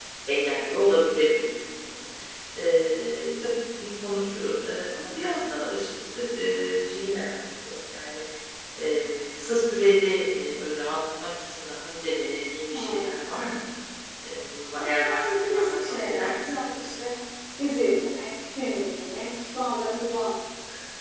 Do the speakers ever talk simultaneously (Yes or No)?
Yes